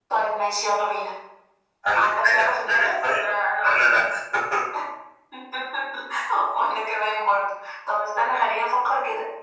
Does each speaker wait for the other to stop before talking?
No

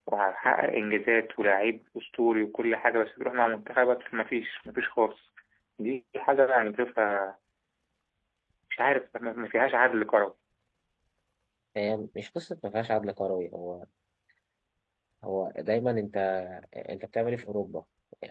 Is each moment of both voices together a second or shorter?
Yes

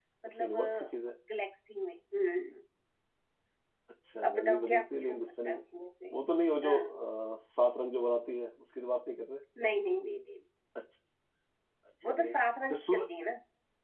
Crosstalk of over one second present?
Yes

